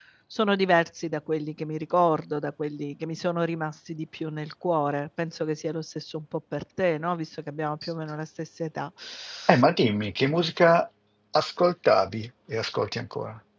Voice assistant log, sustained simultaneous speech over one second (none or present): none